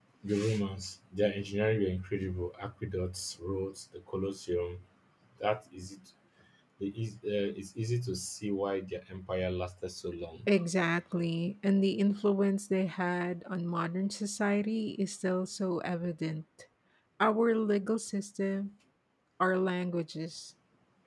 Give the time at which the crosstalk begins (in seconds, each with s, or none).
none